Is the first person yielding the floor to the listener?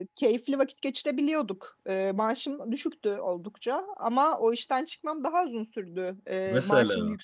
No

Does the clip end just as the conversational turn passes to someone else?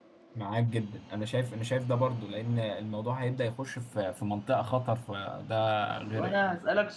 Yes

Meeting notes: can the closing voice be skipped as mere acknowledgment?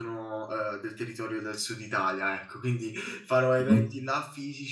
Yes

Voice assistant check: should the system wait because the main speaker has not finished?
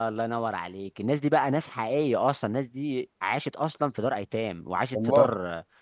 Yes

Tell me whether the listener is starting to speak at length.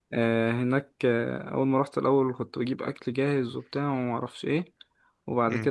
No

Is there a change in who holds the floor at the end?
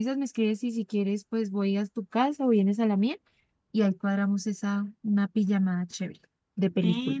Yes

